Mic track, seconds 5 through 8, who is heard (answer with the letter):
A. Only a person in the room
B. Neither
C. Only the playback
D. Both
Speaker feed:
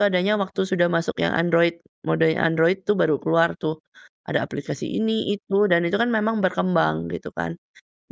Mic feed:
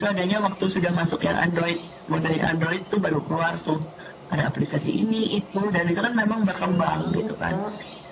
D